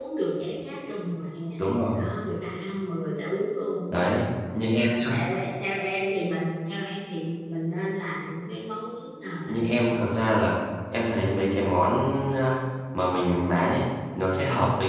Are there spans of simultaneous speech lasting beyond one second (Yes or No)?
No